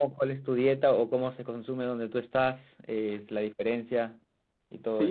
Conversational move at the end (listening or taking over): taking over